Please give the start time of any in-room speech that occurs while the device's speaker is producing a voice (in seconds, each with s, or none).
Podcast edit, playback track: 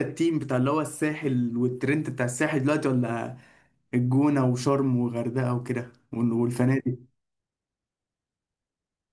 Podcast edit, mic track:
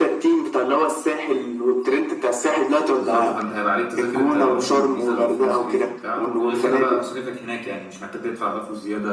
3.0 s